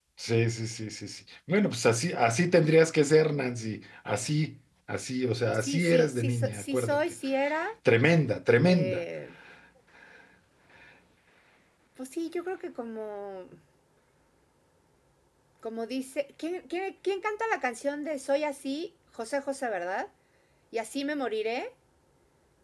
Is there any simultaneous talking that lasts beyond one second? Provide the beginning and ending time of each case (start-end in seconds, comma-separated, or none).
5.5-7.1